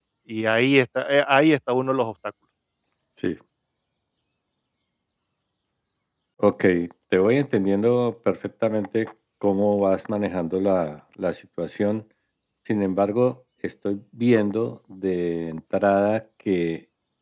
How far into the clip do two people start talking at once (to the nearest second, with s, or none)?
none